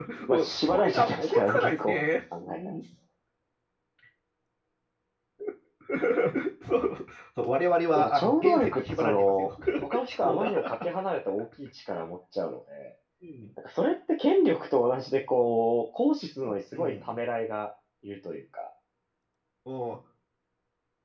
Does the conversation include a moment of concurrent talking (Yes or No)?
Yes